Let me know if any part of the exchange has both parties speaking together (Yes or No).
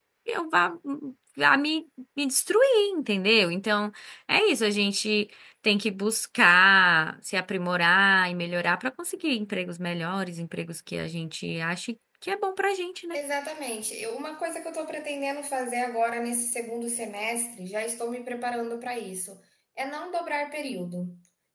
No